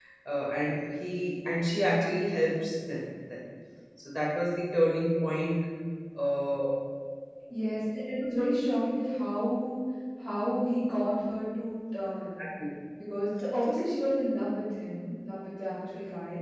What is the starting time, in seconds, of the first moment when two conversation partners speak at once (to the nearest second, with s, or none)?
none